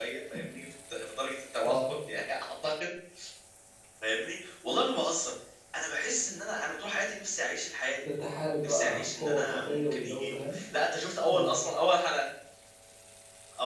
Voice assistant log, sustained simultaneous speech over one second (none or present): present